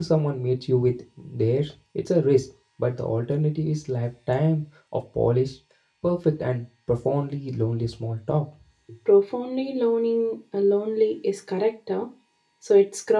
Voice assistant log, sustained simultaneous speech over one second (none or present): none